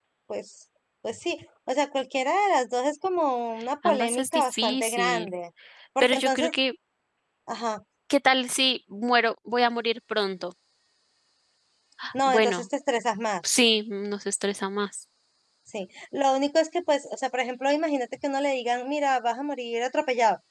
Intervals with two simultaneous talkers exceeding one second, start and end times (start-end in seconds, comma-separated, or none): 3.8-5.3